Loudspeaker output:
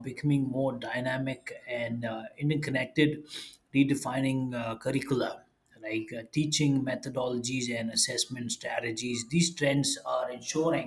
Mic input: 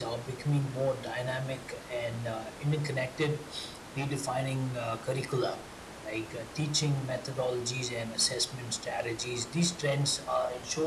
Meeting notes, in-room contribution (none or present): none